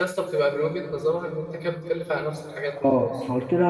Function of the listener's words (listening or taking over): taking over